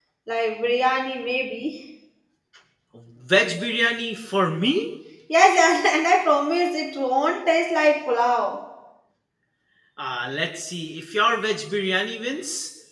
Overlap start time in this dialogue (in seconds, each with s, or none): none